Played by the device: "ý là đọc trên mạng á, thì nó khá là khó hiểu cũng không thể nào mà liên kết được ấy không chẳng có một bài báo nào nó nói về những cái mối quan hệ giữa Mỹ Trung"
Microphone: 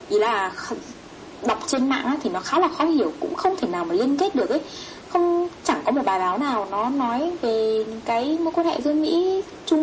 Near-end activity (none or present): none